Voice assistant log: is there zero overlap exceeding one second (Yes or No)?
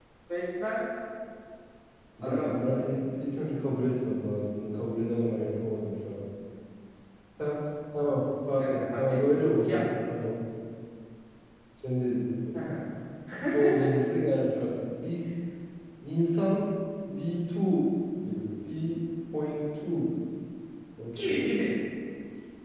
No